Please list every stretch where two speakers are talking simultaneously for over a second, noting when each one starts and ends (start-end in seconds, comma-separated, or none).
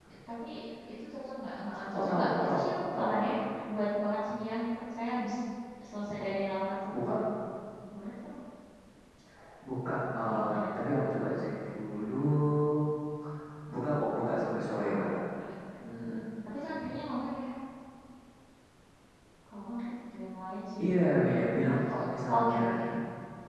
2.0-3.3